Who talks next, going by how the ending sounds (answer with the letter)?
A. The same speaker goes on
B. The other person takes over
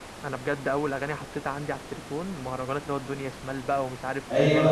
B